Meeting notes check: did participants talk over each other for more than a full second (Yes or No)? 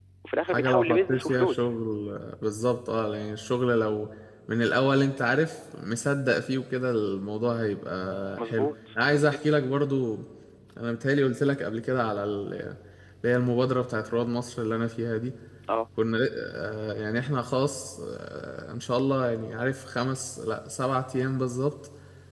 Yes